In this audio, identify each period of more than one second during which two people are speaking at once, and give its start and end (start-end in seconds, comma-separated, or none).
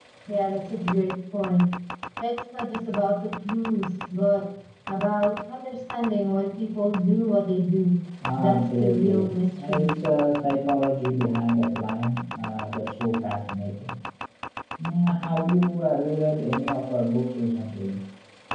8.4-10.0